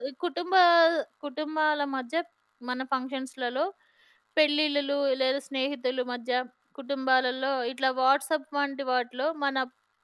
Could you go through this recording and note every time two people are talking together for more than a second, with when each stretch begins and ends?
none

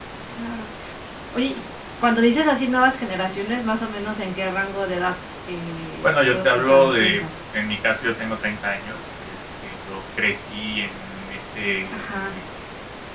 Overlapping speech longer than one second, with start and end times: 6.0-7.2

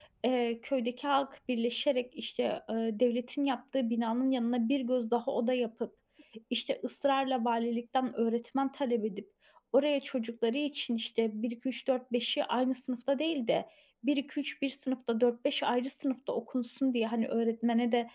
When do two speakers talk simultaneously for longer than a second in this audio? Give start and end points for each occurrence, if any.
none

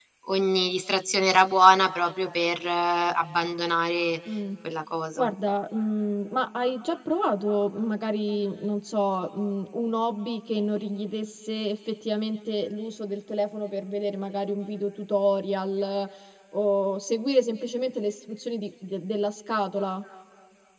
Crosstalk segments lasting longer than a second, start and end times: none

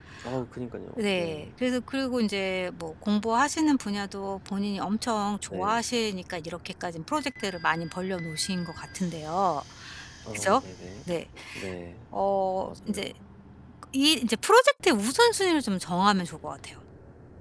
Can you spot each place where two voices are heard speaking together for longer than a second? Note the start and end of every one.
none

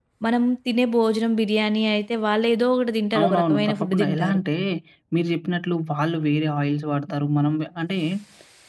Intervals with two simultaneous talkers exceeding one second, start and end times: 3.2-4.4

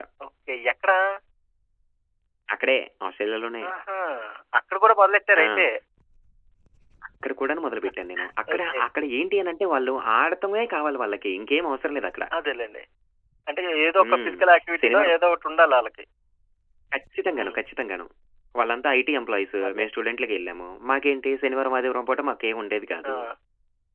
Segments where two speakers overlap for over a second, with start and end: none

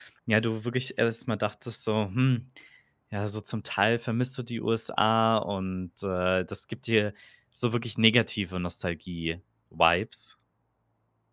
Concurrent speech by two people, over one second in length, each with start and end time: none

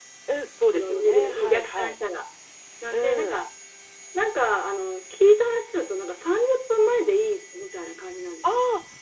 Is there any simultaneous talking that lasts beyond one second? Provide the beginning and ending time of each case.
0.7-2.0

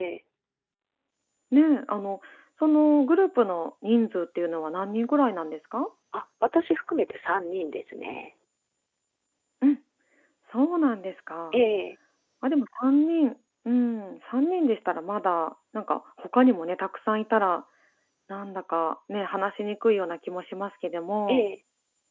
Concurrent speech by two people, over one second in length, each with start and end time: none

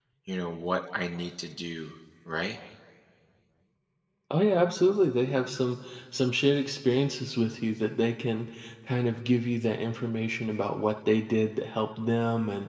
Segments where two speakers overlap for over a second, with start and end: none

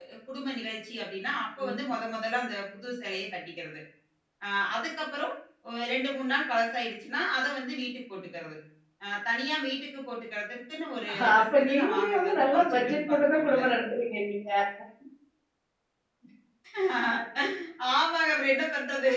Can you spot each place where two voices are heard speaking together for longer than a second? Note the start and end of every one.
11.1-13.7

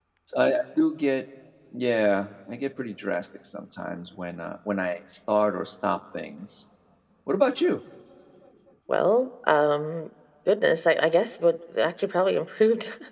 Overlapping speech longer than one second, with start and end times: none

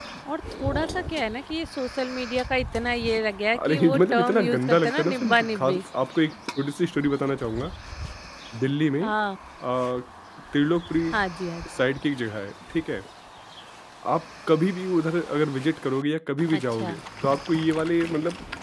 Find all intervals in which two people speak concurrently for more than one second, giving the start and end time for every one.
3.5-5.8

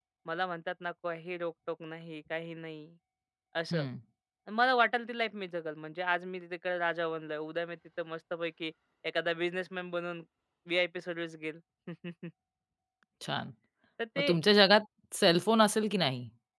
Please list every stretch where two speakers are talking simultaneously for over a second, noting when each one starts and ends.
none

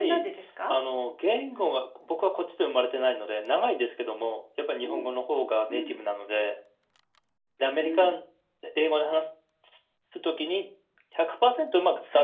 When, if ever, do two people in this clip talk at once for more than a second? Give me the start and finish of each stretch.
none

